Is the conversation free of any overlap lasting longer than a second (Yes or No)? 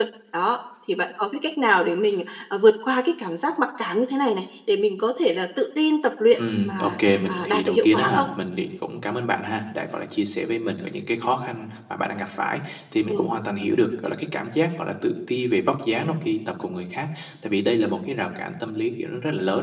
No